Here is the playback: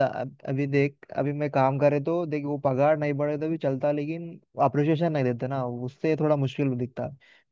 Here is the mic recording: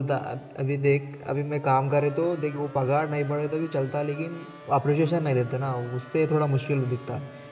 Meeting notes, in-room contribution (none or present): none